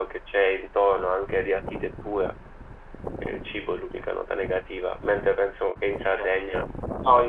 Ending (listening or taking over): taking over